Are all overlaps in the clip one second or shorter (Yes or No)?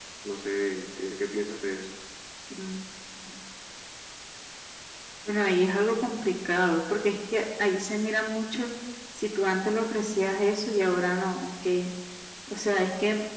Yes